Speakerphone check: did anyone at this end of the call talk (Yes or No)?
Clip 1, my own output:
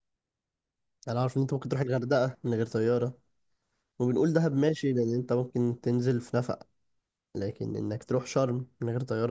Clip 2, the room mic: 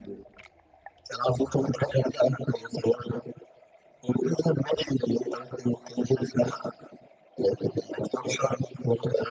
No